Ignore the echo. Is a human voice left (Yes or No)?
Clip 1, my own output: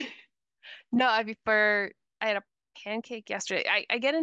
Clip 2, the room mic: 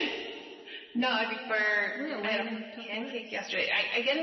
Yes